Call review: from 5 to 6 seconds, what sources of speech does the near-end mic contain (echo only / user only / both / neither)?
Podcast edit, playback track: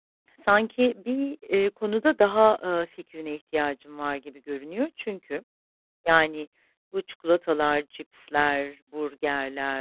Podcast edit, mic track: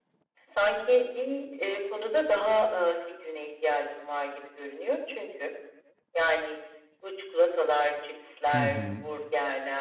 echo only